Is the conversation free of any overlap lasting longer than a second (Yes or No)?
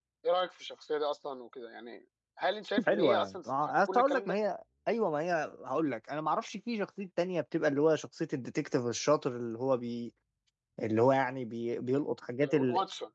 No